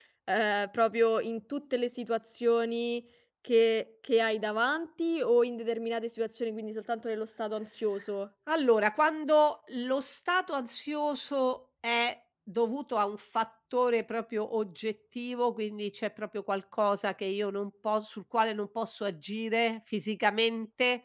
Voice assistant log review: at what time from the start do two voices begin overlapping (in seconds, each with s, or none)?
none